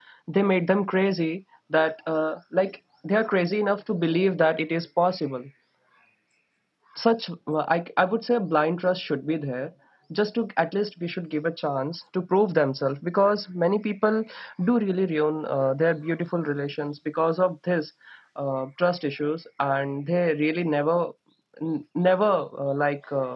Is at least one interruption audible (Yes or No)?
No